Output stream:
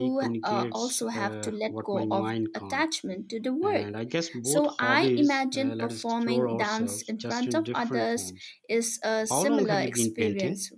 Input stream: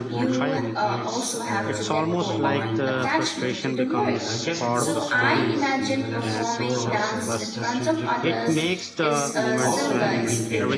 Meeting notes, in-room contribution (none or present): present